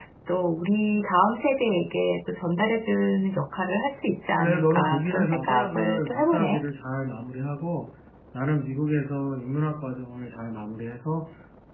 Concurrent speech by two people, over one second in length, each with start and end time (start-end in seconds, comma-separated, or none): 4.4-6.6